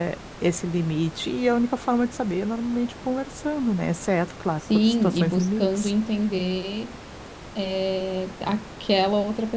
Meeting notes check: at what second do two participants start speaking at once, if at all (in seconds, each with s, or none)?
4.6 s